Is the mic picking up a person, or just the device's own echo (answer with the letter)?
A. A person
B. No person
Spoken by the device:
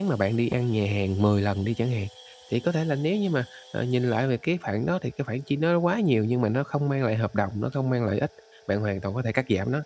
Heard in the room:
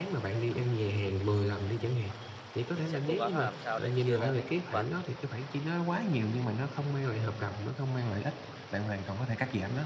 A